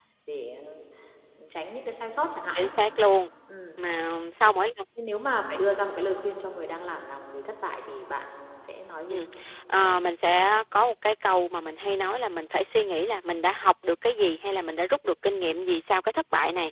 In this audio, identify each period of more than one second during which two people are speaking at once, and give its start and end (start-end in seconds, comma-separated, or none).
none